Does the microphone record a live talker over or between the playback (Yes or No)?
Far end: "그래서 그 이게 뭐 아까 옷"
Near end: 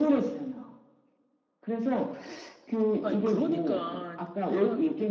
Yes